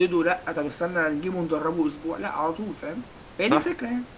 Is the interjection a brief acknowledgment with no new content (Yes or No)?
No